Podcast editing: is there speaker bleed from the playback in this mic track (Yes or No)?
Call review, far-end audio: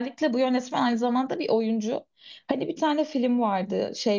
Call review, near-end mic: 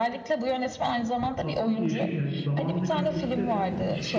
Yes